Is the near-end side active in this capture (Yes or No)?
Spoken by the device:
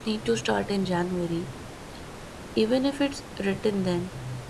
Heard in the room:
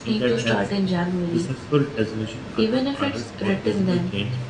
Yes